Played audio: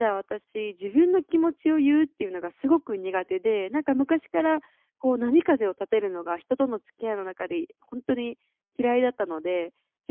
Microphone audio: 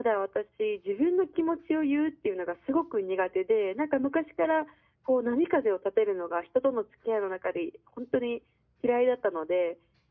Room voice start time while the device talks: none

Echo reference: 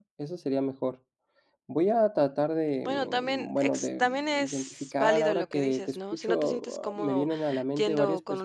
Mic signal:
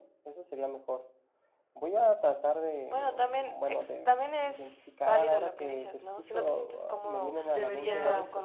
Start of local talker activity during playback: 7.5 s

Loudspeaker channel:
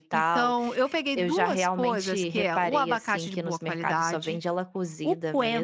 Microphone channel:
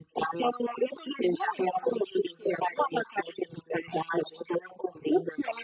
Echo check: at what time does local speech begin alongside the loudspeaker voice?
none

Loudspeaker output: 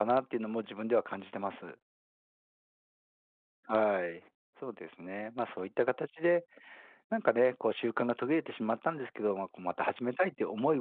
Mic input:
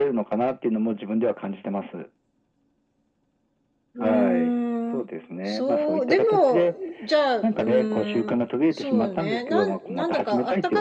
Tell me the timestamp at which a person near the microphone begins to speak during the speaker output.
3.9 s

